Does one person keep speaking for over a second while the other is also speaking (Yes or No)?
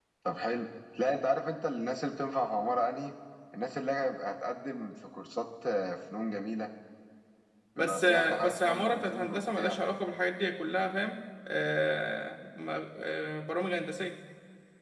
Yes